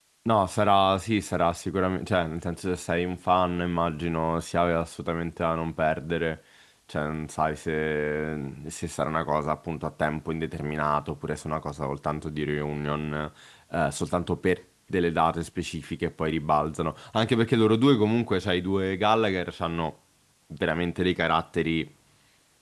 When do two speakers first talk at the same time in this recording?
none

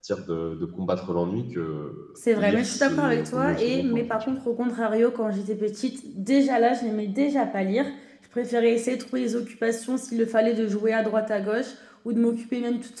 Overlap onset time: 2.4 s

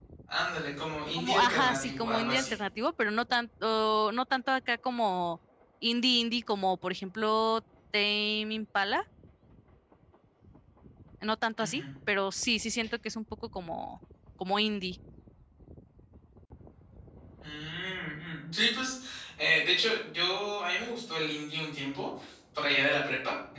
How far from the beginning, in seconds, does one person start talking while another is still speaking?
1.2 s

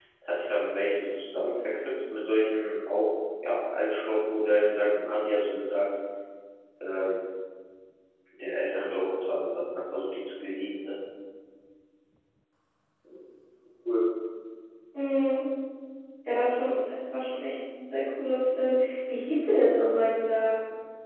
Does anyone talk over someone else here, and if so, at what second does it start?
none

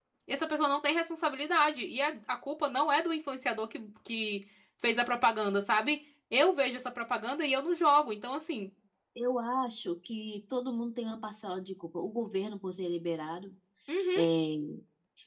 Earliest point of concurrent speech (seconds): none

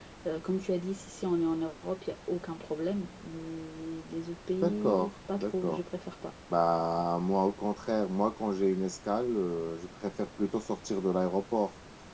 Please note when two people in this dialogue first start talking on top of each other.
4.6 s

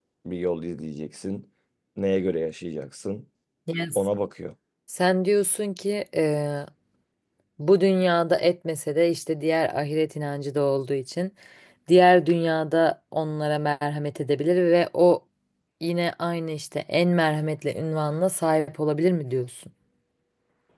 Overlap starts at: none

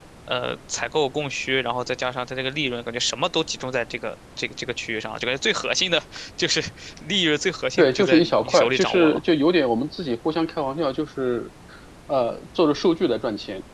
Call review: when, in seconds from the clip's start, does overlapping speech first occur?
7.8 s

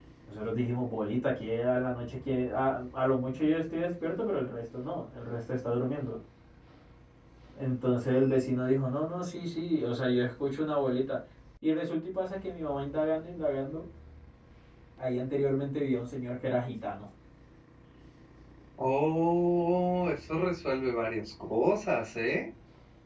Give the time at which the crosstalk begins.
none

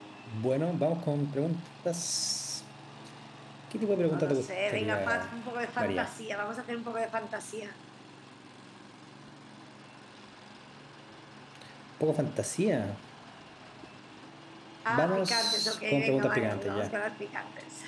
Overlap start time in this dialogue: 4.1 s

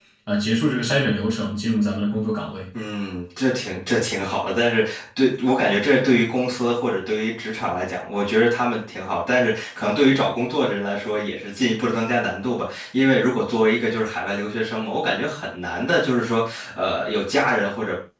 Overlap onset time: none

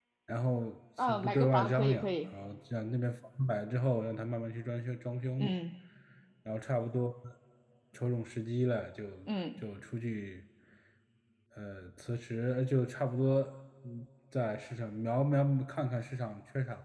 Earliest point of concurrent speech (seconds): 1.0 s

